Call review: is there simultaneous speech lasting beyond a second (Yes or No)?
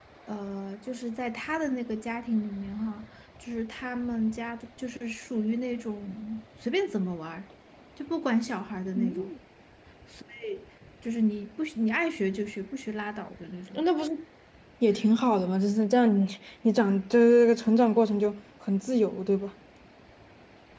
No